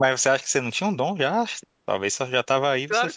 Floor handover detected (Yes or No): Yes